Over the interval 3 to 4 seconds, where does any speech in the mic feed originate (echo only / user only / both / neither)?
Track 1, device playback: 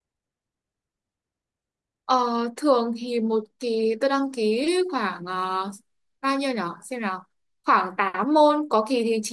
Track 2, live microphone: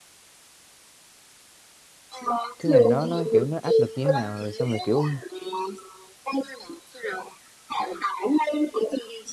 both